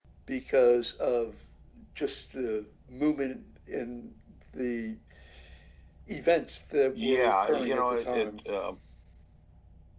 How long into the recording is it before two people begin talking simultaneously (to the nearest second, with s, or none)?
7 s